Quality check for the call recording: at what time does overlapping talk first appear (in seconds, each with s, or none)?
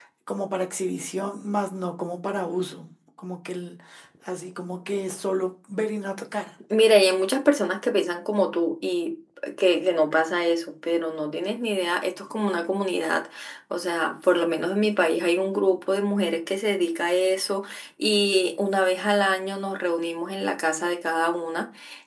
none